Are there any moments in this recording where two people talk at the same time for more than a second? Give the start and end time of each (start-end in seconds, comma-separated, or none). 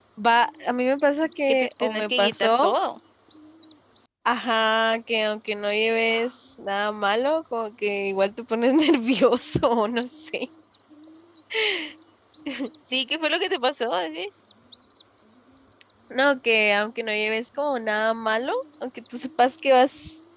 1.5-2.7